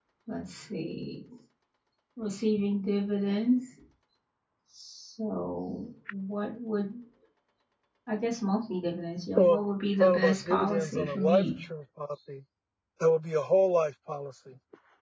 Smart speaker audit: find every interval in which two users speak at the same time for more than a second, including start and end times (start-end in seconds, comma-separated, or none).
10.0-11.4